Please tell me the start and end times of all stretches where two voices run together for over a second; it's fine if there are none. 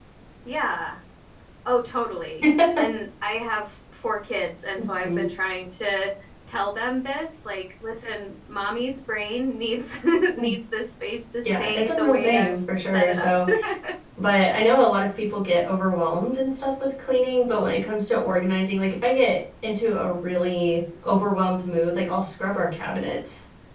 11.4-13.4

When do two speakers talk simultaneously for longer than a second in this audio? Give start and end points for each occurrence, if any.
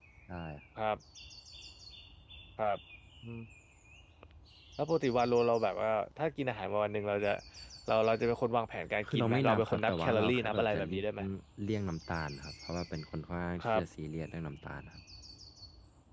9.0-11.0

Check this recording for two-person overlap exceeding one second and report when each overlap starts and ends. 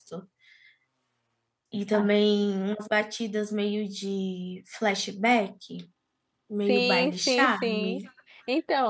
6.7-8.0

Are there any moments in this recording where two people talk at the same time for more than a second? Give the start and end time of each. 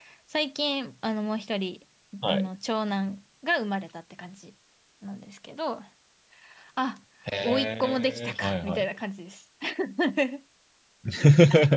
7.4-8.9

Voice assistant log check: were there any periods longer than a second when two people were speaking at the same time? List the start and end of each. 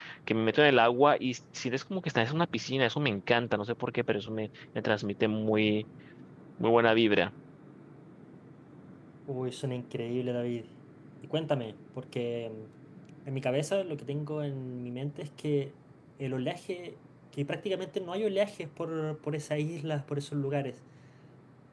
none

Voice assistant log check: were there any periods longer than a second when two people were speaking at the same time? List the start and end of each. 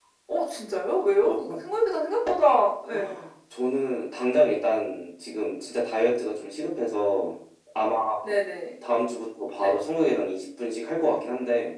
none

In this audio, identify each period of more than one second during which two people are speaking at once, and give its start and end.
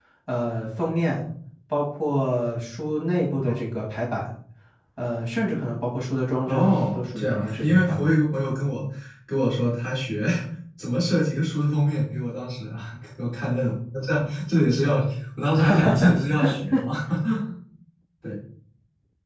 6.5-8.1

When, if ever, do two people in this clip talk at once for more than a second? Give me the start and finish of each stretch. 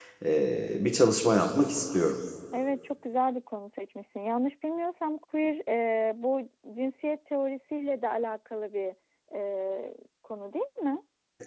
none

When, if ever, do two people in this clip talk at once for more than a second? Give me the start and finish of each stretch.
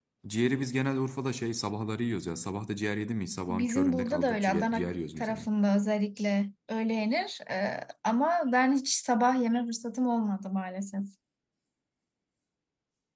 3.5-5.4

